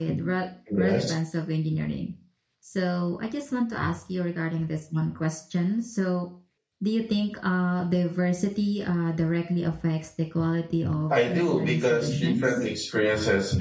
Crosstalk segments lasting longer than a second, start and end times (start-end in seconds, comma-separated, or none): 11.1-12.7